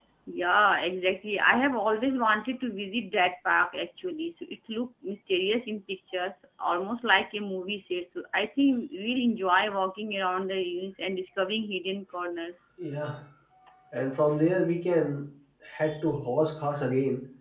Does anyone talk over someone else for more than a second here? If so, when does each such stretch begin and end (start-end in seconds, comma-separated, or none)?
none